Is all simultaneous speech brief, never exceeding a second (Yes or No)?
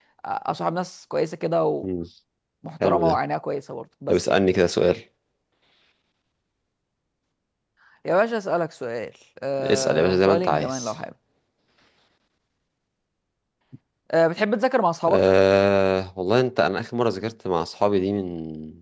No